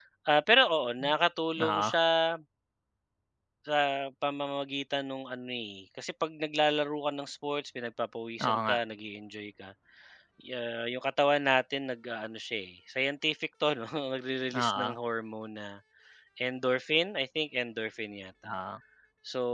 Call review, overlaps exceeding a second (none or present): none